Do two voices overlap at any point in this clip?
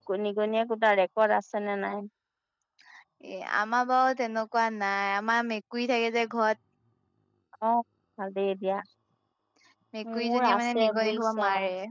Yes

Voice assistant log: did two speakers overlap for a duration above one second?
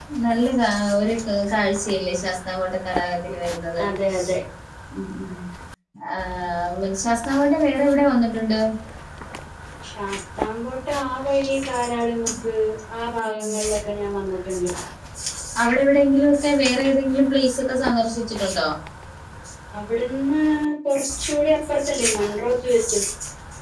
No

